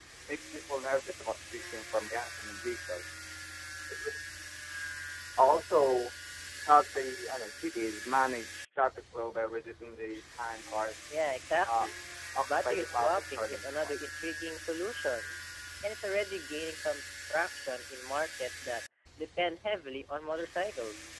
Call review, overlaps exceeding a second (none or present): present